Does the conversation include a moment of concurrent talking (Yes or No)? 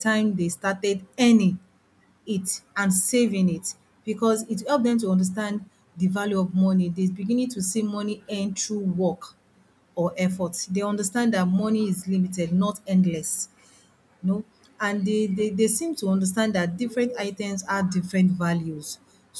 No